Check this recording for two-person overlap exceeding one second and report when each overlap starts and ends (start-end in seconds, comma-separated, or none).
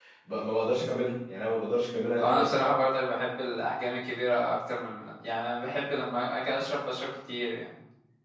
none